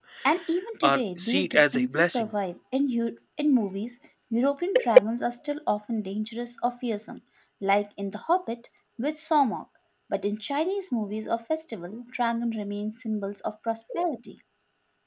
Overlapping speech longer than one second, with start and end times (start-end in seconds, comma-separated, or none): 0.8-2.3